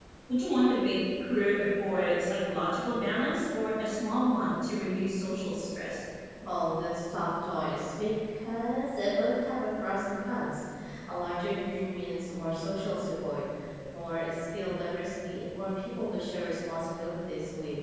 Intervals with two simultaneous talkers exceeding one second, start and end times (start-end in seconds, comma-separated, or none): none